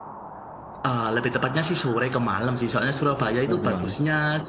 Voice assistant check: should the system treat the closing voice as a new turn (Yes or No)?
No